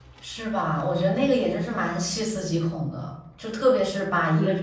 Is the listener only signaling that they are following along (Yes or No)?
Yes